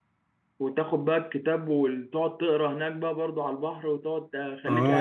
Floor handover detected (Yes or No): Yes